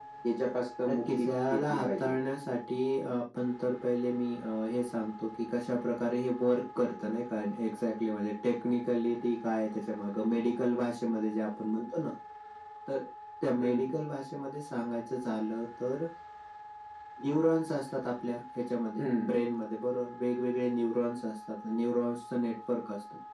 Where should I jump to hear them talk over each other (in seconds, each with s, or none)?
0.9 s